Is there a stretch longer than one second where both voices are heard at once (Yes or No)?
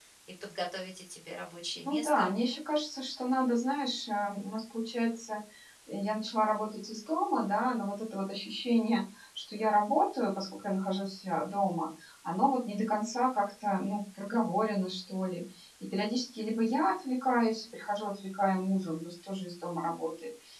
No